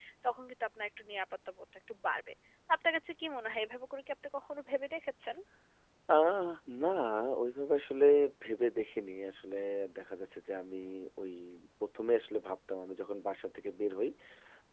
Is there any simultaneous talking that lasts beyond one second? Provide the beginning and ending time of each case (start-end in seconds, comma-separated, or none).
none